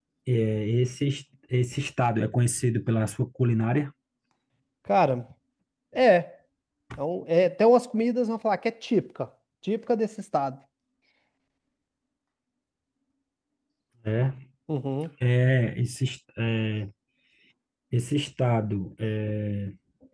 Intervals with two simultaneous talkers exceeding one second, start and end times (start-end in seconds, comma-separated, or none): none